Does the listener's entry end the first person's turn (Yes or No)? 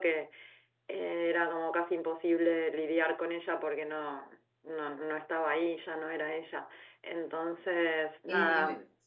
Yes